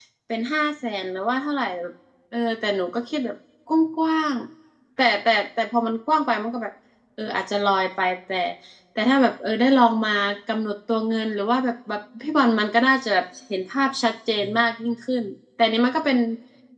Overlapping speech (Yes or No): No